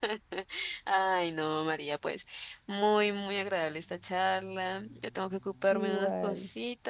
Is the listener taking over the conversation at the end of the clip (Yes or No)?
No